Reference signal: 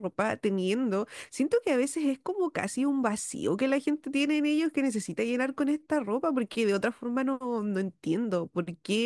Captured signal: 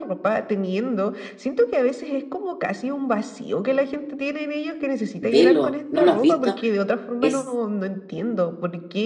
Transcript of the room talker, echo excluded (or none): velo, ¿no lo has visto? Es